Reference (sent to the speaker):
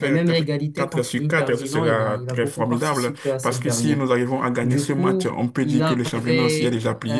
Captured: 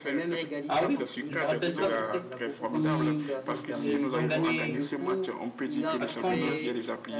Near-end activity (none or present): present